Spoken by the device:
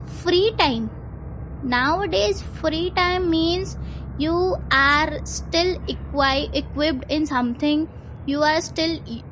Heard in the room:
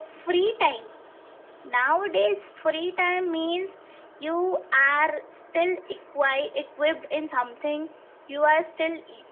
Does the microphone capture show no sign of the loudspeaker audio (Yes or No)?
No